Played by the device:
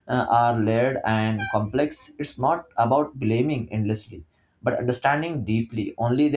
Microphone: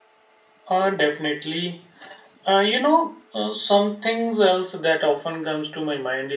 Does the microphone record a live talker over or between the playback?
Yes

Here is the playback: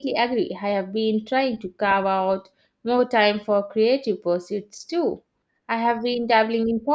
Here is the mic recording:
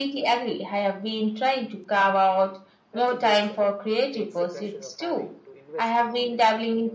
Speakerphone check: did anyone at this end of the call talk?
Yes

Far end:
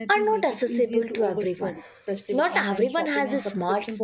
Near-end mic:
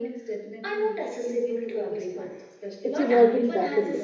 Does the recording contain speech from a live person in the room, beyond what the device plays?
Yes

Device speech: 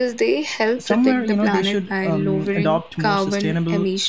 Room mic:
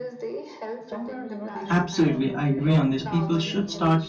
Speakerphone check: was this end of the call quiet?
No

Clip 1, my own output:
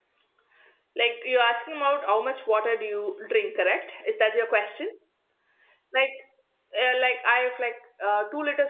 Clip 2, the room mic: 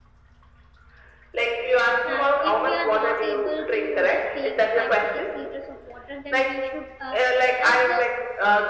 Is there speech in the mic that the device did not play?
Yes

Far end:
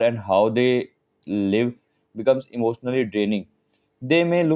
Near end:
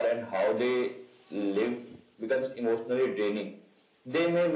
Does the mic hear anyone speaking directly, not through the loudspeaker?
No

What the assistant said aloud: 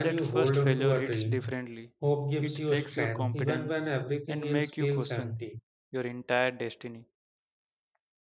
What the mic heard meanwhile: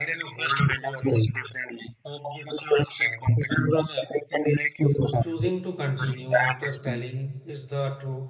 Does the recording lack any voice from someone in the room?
No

